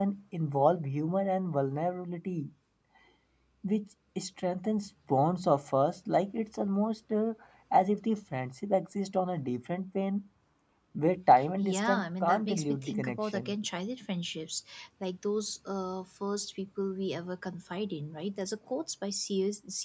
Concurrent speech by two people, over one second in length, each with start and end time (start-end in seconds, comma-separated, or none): 11.6-13.5